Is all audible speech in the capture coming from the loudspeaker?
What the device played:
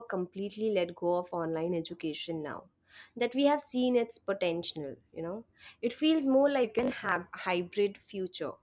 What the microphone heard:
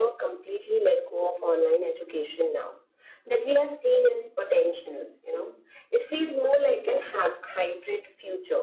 Yes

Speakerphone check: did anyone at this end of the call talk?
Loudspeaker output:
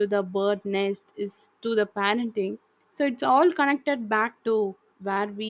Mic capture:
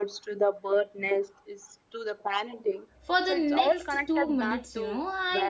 Yes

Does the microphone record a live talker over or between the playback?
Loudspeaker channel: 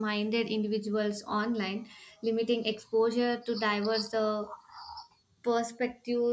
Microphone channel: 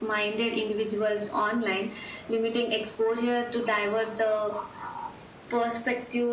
No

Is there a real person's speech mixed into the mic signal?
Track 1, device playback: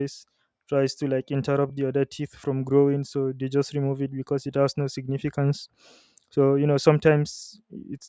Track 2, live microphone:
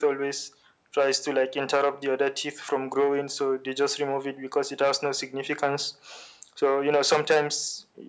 No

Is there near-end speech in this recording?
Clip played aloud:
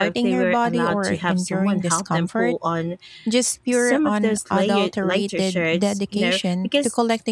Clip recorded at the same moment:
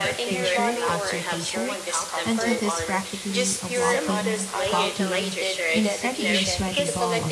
Yes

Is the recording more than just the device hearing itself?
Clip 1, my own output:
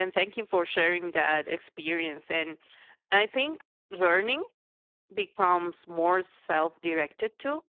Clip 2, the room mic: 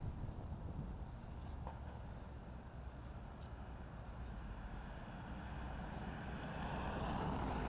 No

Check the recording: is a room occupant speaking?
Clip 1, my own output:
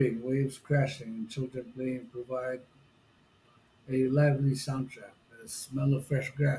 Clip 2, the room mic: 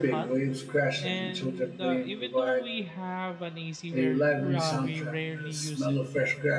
Yes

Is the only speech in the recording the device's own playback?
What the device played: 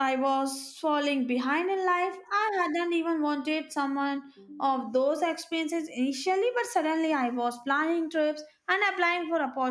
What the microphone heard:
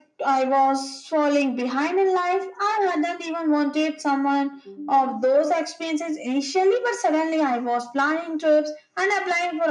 Yes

